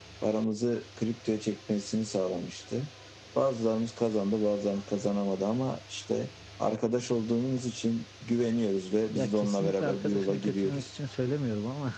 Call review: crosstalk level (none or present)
present